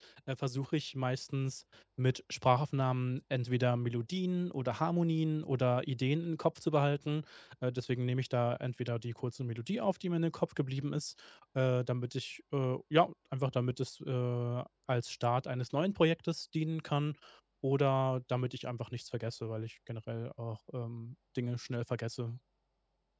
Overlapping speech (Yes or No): No